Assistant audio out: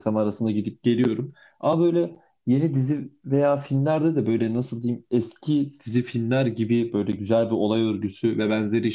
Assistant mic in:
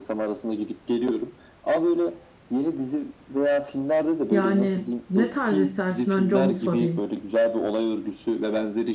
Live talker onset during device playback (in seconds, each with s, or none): 4.3 s